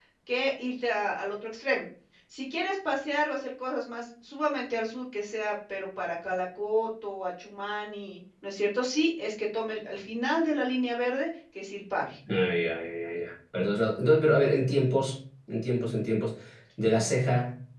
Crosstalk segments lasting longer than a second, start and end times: none

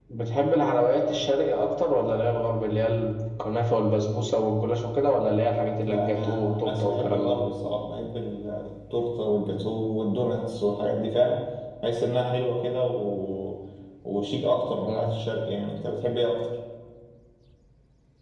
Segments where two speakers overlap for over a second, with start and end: 5.8-7.4

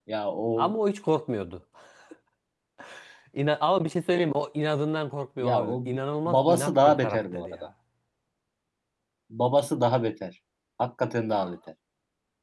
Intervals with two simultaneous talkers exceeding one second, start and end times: 6.3-7.7

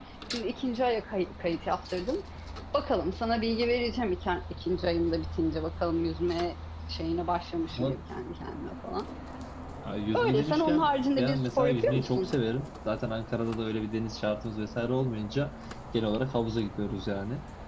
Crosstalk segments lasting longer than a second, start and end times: 10.1-12.3

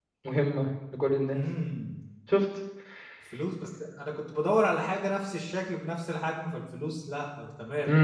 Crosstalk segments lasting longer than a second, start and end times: none

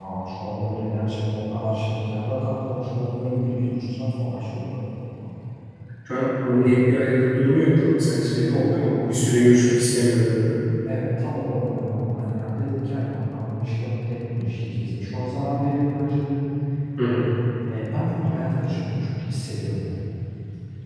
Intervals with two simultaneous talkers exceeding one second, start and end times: 8.3-9.6

